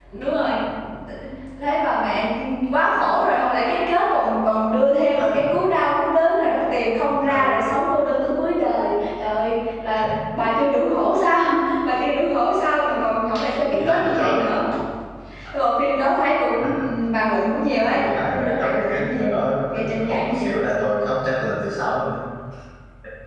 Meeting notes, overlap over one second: present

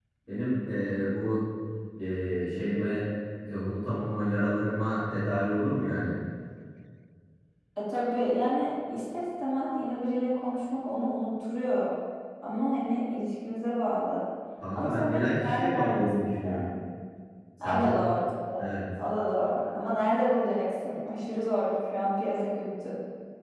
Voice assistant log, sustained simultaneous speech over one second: present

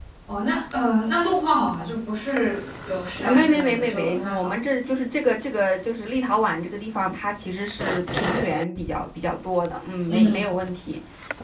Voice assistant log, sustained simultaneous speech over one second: present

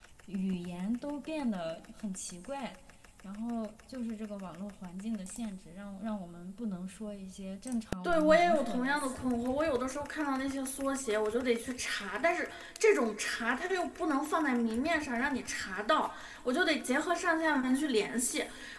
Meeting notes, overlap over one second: present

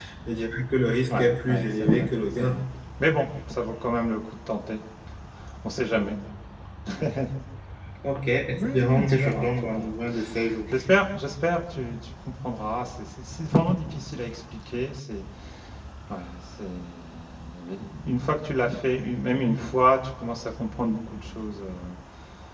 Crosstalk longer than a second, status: present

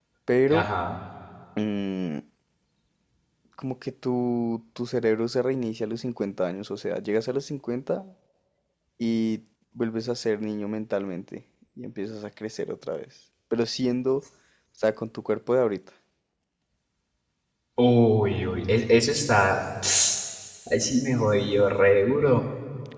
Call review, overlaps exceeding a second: none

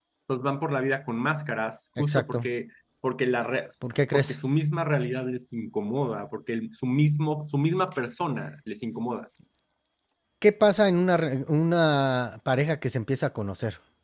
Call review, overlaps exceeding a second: none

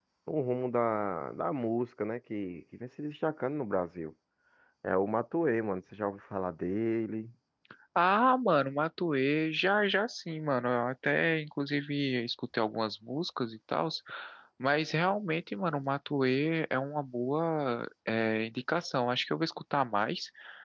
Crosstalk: none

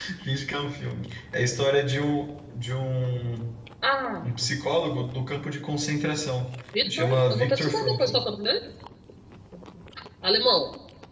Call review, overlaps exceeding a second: present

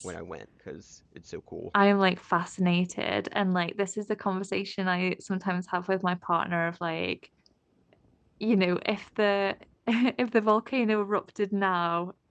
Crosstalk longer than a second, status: none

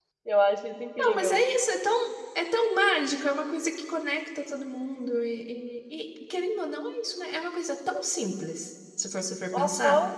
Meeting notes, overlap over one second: none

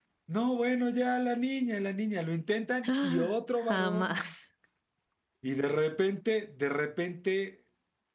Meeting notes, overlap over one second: present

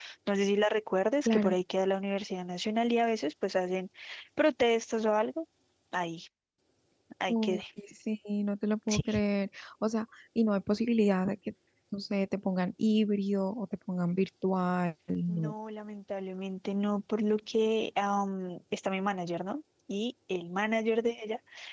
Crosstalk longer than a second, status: none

